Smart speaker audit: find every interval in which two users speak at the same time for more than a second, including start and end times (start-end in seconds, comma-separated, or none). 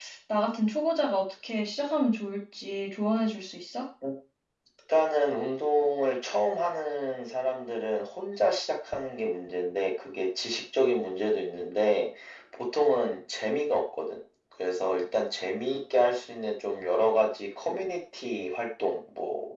none